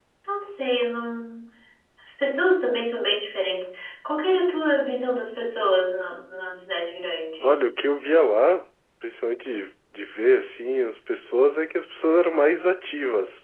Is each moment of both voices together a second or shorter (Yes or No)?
Yes